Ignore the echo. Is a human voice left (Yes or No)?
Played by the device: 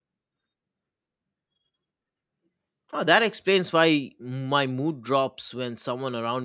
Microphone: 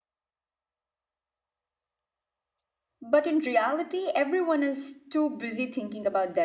Yes